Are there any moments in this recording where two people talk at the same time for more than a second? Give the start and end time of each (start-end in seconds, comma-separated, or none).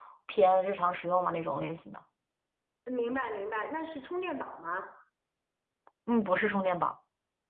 none